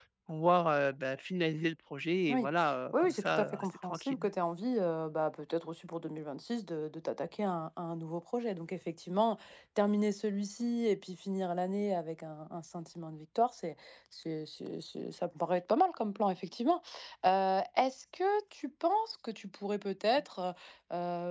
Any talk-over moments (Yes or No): Yes